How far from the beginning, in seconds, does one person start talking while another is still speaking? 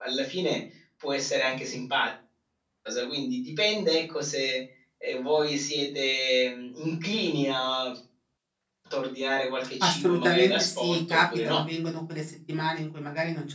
9.8 s

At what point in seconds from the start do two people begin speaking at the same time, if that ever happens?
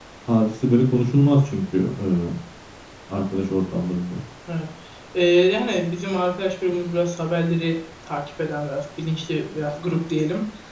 none

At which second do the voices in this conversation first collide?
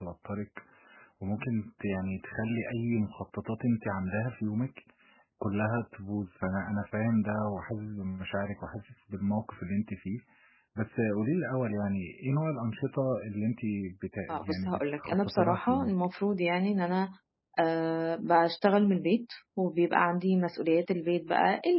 14.3 s

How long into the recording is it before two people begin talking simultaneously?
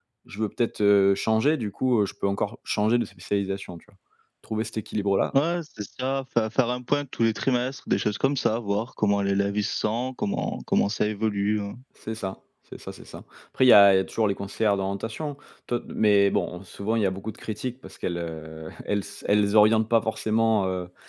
none

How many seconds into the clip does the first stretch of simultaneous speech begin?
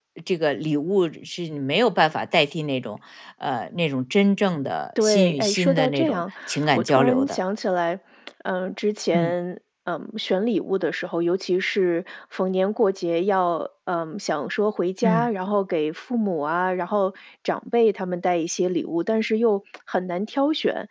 5.0 s

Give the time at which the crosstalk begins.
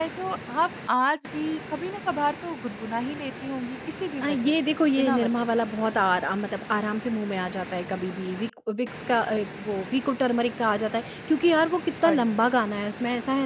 4.2 s

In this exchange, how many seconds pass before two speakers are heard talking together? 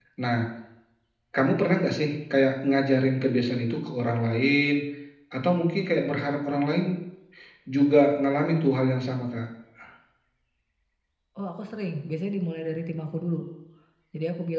none

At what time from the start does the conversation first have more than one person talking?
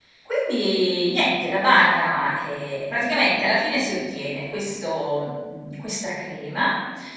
none

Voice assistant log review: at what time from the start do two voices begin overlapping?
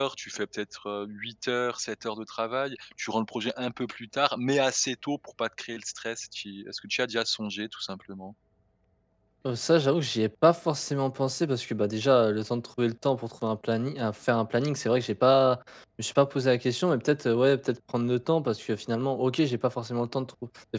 none

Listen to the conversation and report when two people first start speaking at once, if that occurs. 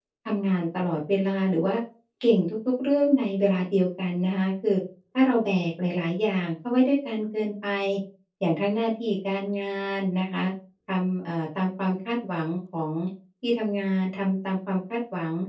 none

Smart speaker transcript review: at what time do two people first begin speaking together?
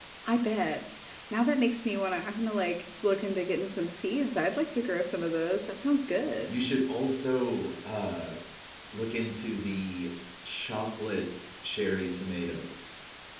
none

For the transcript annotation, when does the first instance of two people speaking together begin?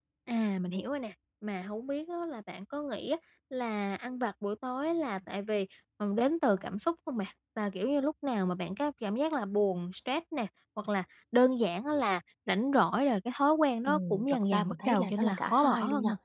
13.9 s

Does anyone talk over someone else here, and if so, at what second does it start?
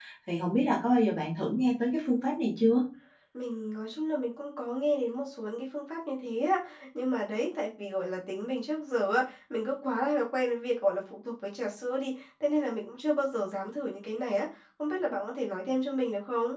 none

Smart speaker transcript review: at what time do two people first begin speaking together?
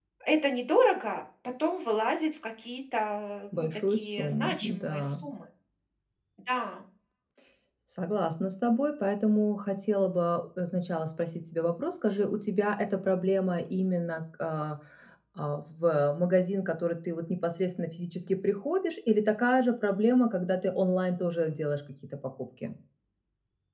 3.6 s

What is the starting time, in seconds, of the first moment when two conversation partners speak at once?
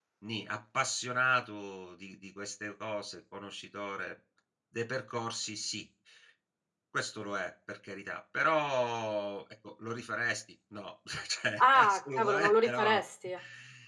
11.6 s

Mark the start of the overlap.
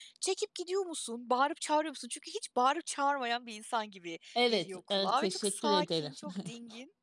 4.3 s

